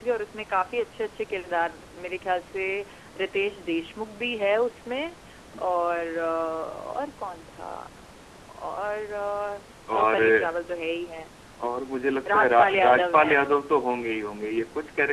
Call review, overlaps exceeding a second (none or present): present